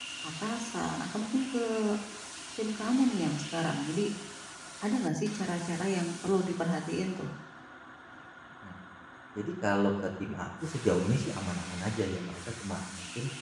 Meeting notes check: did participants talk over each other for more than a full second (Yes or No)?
No